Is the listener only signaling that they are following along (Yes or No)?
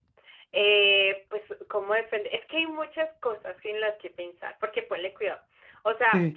Yes